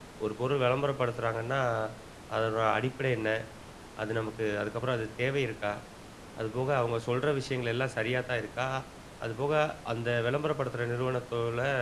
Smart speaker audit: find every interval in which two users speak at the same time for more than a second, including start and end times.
none

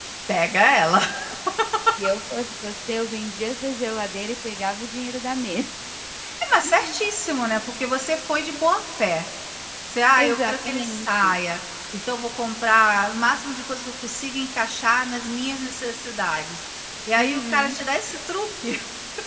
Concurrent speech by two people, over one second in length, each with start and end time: 10.2-11.4

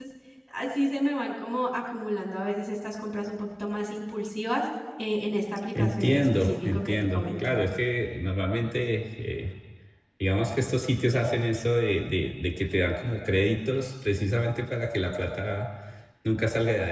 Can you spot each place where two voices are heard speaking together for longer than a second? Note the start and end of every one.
5.8-7.5

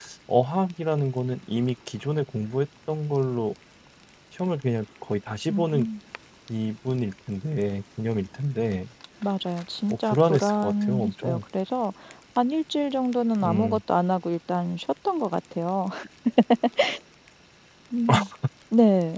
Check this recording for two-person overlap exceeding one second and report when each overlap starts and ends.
9.9-11.4

